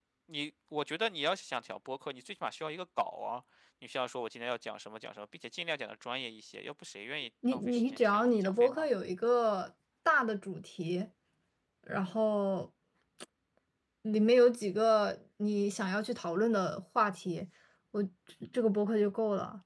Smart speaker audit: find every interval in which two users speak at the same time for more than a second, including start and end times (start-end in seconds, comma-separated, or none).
7.5-8.9